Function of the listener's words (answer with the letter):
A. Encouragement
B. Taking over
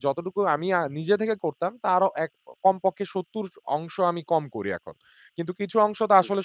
B